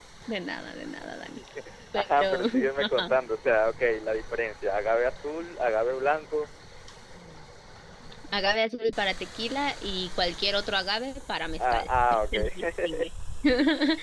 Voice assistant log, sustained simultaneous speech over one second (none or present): present